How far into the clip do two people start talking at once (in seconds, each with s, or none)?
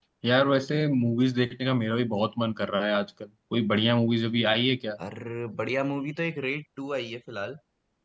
none